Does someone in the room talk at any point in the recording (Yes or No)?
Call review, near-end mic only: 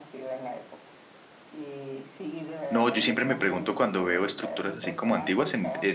Yes